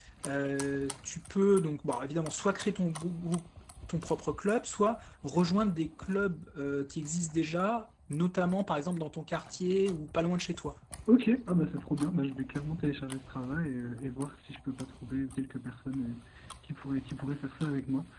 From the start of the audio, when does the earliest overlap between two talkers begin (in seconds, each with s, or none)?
none